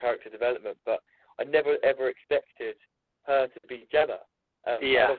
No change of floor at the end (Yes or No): Yes